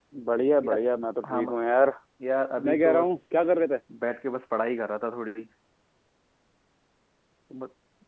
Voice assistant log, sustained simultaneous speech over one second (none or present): none